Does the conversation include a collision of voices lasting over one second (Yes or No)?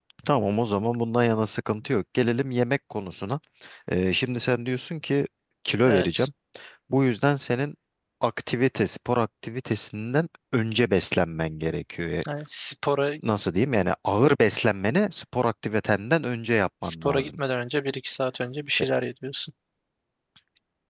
No